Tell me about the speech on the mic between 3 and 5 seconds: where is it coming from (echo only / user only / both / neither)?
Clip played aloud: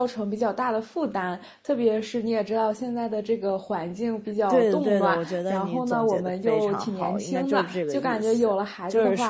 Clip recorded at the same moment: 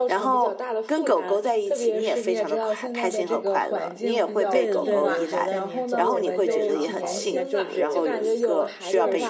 both